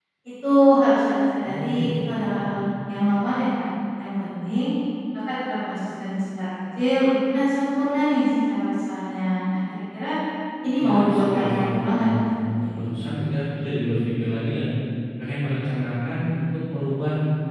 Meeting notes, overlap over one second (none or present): present